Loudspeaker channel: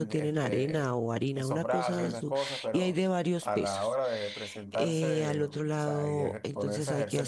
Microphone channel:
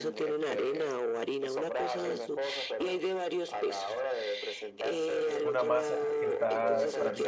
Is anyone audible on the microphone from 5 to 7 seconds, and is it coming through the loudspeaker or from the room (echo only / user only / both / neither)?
both